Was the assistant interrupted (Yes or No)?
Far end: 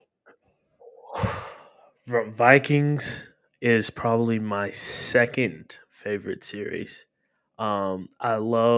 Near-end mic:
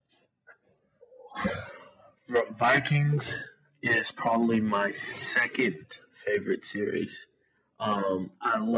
No